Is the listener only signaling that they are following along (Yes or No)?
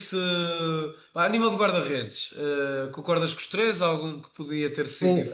No